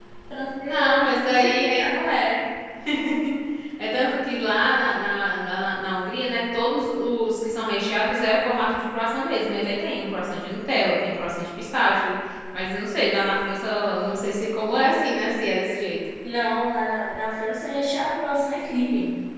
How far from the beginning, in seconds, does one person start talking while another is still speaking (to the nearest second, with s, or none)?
1 s